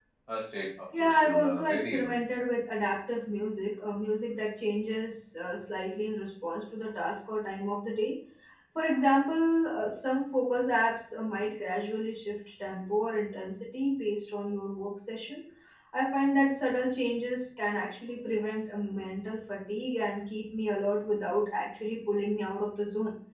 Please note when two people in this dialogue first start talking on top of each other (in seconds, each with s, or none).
0.9 s